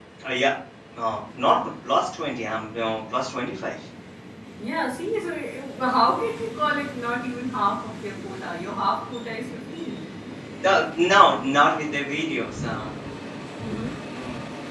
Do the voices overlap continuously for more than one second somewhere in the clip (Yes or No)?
No